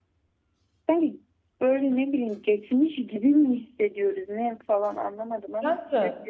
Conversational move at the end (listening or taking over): taking over